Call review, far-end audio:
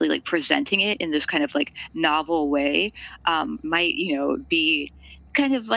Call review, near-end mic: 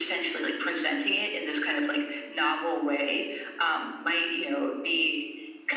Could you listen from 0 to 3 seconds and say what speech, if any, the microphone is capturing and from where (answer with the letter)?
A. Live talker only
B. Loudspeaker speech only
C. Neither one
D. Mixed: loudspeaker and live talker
B